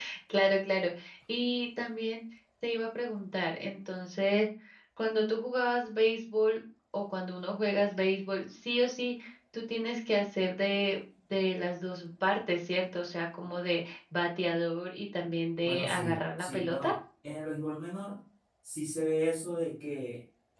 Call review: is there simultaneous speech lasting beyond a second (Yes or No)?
Yes